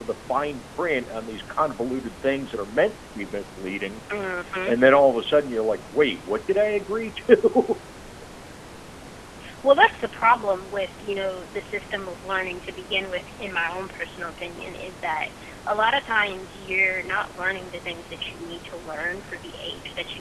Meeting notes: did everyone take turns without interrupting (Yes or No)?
Yes